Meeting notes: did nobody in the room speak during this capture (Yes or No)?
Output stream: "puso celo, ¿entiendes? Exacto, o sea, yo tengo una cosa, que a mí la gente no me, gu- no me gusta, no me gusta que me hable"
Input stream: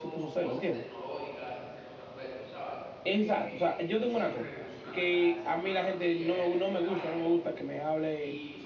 No